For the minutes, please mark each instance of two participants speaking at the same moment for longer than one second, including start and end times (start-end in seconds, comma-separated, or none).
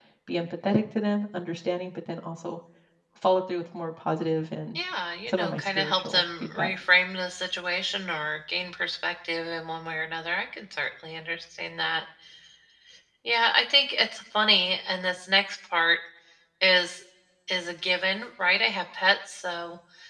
5.3-6.7